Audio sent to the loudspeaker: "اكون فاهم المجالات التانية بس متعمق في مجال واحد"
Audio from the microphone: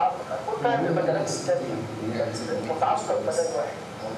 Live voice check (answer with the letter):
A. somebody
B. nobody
A